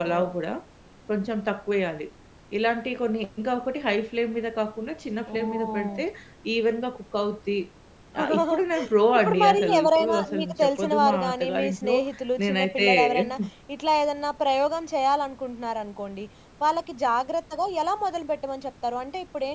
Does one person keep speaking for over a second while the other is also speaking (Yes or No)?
Yes